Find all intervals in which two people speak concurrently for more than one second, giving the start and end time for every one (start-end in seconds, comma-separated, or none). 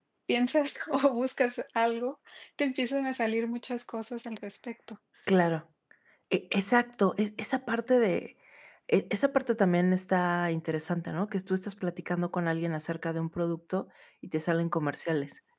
none